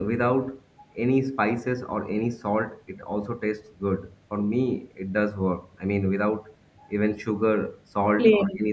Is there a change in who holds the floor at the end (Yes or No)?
No